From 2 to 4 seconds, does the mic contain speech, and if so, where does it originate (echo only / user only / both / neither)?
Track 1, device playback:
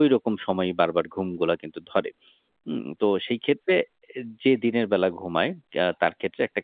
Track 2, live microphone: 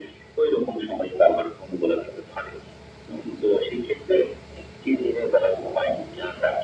echo only